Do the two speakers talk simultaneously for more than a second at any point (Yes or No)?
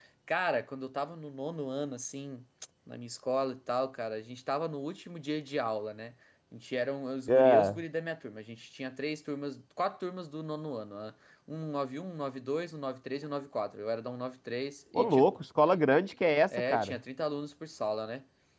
No